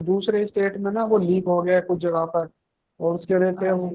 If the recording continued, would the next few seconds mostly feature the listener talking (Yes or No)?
No